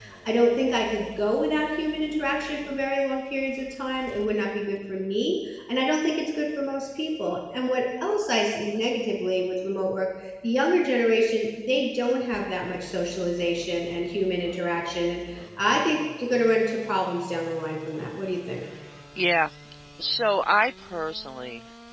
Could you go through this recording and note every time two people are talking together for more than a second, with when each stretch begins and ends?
none

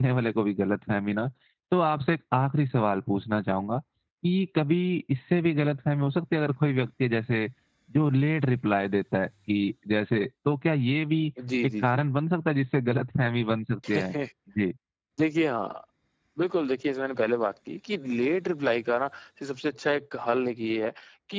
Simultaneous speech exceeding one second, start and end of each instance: none

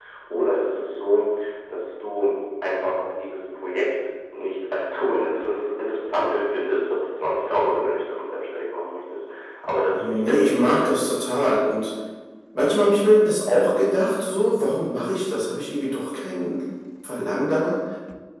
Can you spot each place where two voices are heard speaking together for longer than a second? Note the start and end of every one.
9.9-11.2

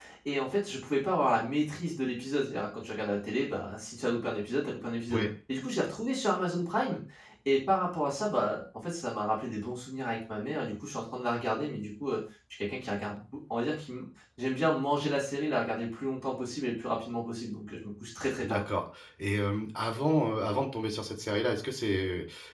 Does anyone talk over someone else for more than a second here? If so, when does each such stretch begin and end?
none

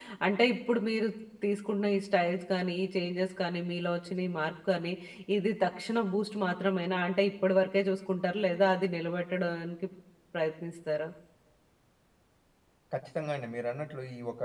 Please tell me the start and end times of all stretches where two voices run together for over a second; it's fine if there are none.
none

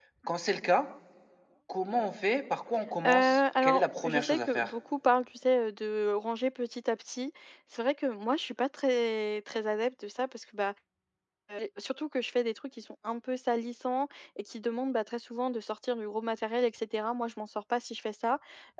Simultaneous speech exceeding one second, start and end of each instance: 3.0-4.7

